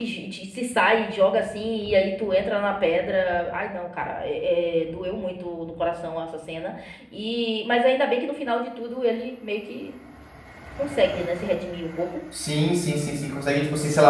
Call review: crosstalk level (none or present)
none